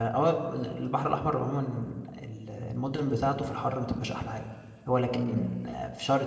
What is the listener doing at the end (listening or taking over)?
listening